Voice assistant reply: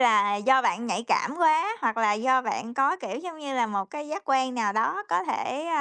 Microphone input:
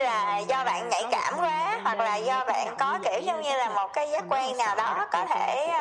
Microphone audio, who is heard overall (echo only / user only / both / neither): both